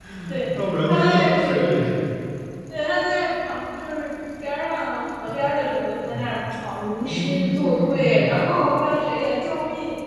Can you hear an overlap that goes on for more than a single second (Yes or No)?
Yes